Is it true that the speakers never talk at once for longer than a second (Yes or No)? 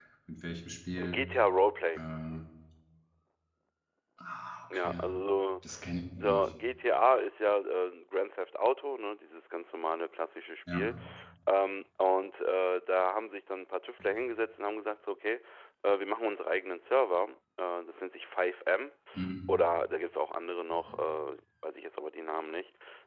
Yes